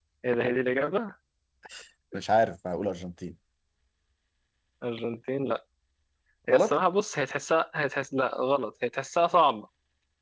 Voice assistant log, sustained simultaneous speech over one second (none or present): none